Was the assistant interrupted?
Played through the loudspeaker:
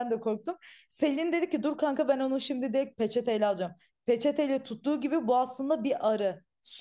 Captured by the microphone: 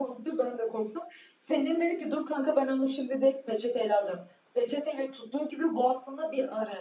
No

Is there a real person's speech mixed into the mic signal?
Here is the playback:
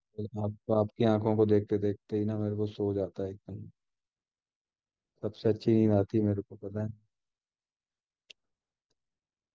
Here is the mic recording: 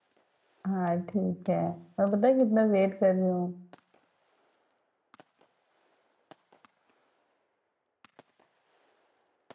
Yes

